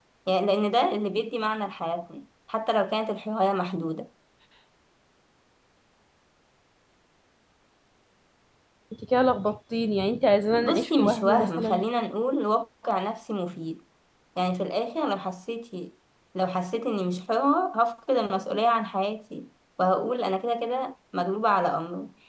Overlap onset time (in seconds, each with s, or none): 10.5 s